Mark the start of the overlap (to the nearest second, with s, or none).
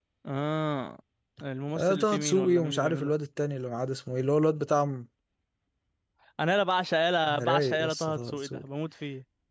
2 s